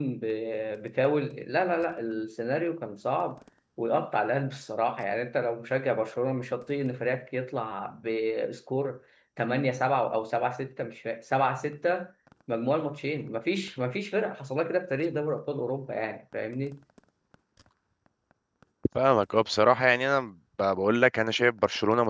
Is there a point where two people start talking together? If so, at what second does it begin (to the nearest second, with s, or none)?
none